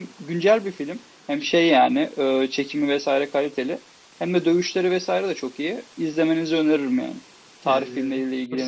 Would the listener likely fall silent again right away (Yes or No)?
No